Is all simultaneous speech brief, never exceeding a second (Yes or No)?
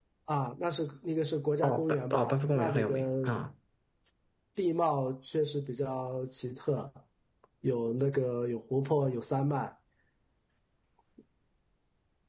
No